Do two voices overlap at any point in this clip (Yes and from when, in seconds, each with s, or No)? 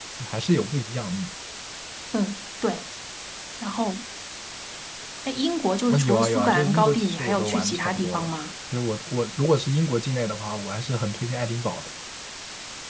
Yes, from 5.9 s